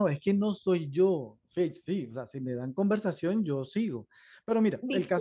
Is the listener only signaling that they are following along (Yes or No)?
Yes